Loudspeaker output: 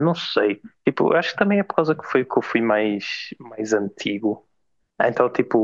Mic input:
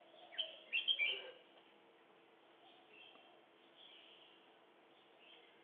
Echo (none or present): none